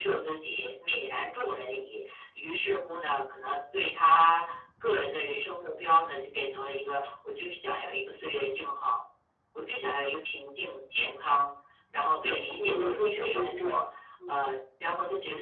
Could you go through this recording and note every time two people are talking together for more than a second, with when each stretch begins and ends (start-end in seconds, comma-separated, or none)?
12.6-13.8